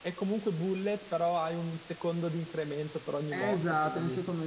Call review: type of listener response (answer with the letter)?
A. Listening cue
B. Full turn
B